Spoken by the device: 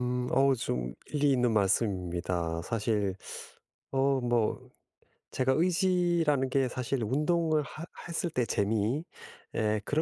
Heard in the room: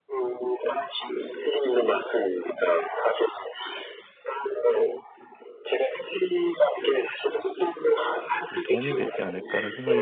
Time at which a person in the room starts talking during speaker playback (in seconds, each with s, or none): 8.5 s